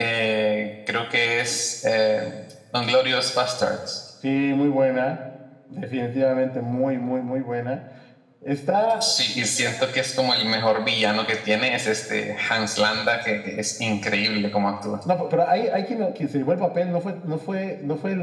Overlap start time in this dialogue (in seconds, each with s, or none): none